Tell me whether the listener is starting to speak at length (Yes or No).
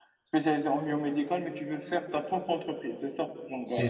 Yes